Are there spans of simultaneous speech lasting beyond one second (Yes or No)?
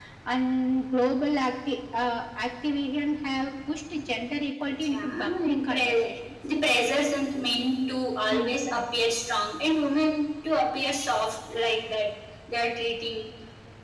Yes